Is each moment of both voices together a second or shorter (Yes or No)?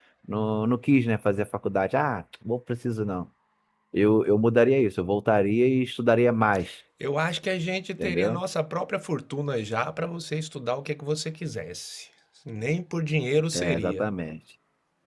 Yes